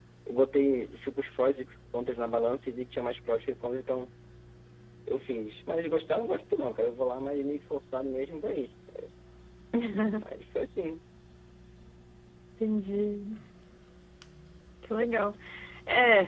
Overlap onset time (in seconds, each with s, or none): none